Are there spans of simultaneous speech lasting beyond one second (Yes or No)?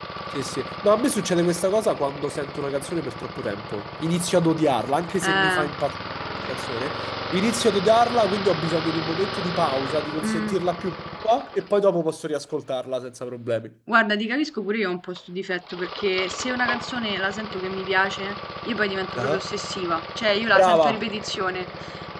No